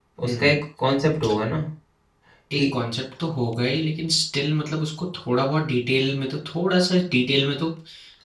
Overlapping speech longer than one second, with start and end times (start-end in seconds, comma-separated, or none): none